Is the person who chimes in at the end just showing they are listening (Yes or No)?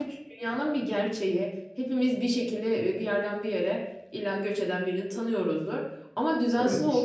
Yes